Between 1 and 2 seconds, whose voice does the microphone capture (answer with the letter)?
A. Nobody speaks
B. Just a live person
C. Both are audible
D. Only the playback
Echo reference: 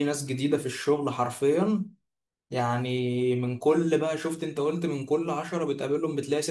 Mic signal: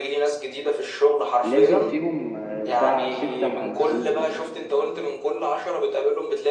C